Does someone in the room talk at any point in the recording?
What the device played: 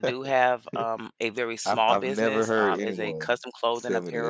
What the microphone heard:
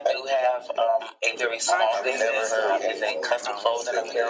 Yes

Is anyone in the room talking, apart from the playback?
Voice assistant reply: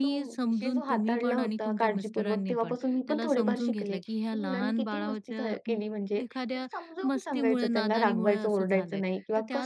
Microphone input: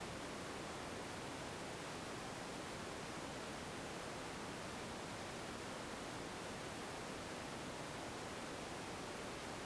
No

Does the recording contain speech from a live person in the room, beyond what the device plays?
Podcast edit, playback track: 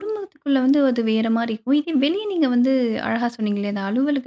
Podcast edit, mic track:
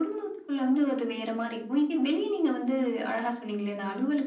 No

